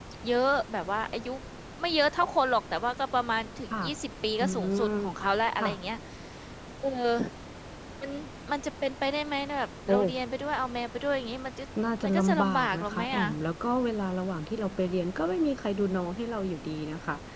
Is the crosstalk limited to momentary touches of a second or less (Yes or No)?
No